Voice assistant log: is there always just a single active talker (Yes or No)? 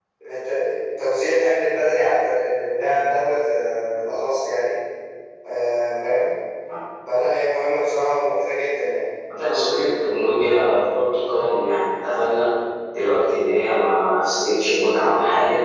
Yes